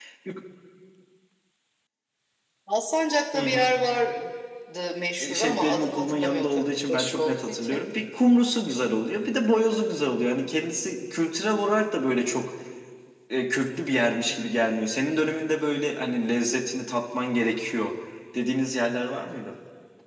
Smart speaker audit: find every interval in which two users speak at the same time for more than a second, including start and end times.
5.2-7.8

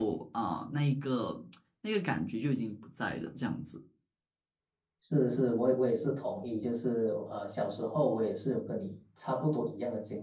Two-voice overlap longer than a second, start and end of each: none

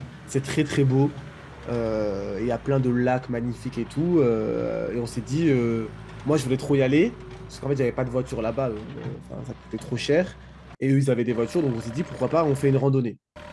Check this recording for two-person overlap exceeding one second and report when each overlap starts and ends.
none

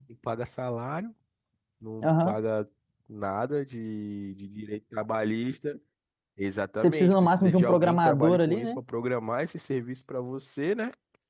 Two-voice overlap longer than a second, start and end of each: 6.8-8.8

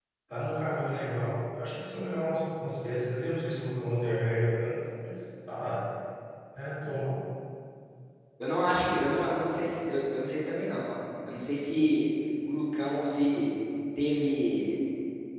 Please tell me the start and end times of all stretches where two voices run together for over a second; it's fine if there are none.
none

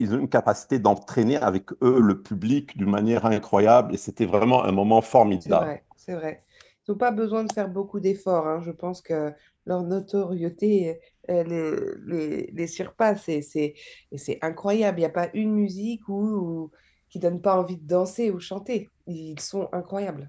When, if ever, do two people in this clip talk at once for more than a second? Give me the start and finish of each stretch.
none

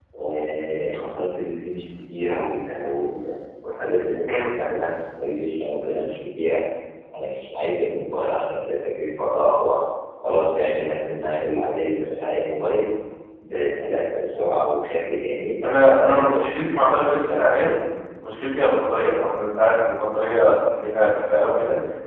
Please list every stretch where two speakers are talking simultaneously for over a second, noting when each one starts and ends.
16.0-17.8

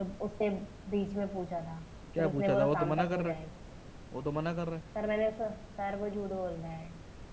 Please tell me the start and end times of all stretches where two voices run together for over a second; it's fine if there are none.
2.2-3.4

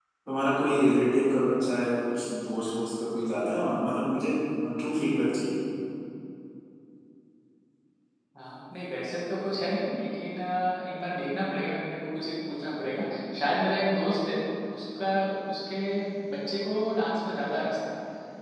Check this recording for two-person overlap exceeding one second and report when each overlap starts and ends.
none

